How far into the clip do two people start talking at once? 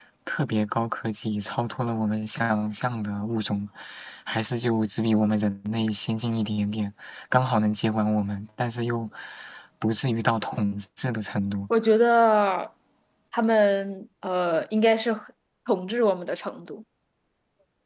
none

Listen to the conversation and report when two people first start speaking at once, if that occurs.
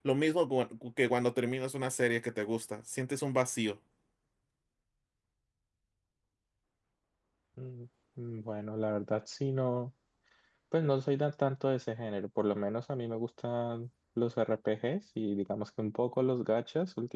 none

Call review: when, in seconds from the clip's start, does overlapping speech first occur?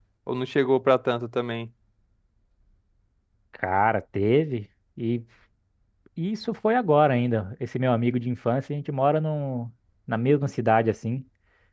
none

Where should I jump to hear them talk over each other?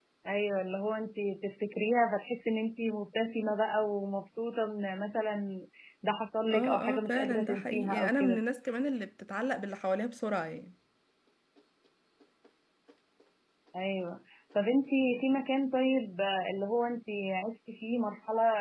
6.5 s

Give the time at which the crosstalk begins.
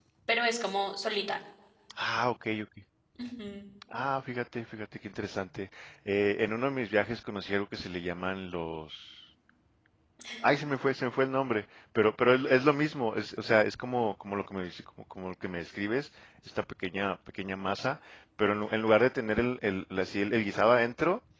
none

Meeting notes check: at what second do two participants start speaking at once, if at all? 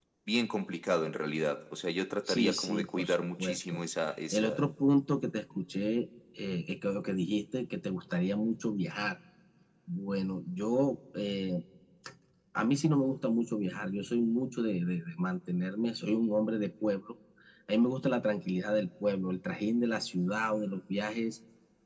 2.3 s

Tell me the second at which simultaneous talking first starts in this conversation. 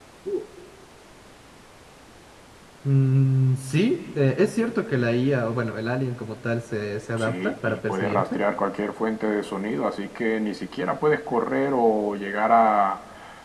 7.2 s

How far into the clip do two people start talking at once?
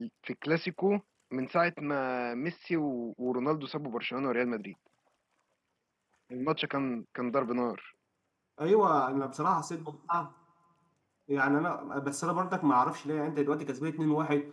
none

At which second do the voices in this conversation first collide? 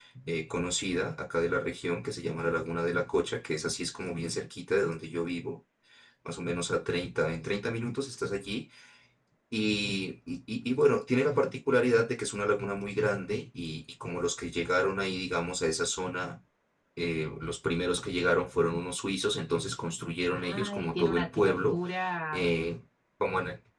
20.3 s

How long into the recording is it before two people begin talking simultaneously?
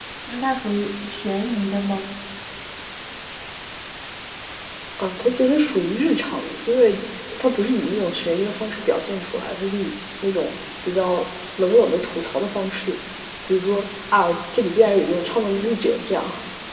none

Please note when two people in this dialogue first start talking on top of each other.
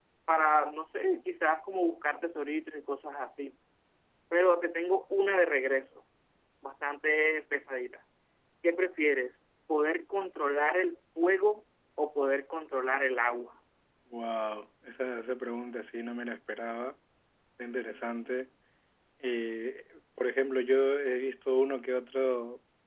none

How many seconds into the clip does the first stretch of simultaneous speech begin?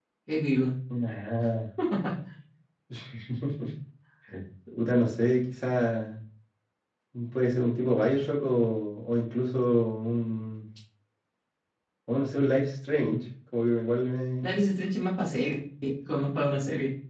none

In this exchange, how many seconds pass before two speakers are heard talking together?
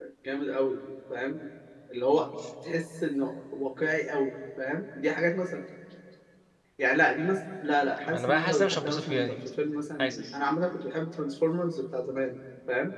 8.0 s

